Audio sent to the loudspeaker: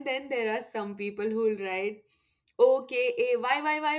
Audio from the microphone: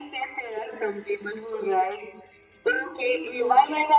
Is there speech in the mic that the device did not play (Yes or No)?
Yes